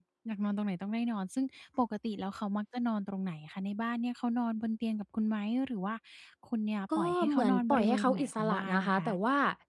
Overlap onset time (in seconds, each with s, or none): 7.0 s